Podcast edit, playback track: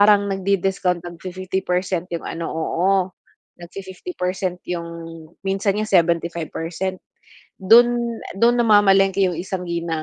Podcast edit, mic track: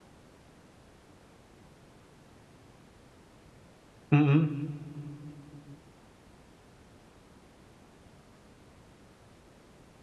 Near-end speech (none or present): present